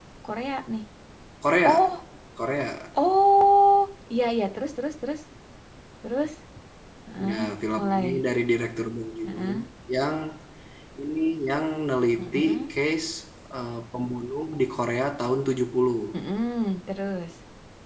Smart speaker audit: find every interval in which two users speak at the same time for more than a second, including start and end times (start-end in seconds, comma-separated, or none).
none